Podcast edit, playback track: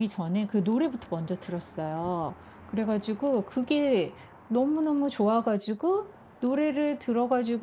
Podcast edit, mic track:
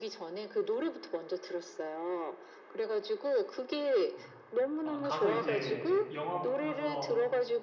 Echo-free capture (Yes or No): No